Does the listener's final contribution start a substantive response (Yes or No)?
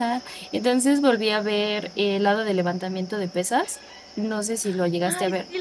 Yes